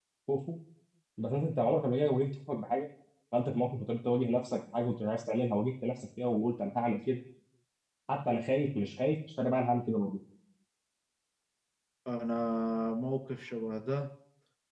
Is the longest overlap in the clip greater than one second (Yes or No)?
No